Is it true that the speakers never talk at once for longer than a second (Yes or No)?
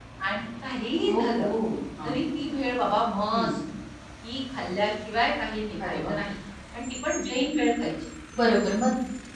Yes